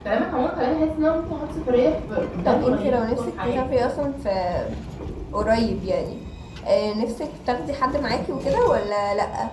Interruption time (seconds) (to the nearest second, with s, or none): 2 s